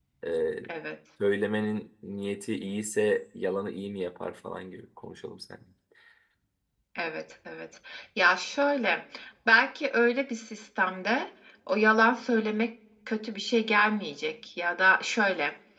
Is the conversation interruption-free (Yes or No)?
Yes